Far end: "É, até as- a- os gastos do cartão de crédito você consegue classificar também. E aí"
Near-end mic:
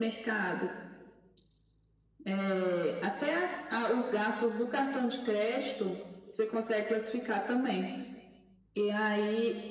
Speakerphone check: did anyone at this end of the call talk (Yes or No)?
No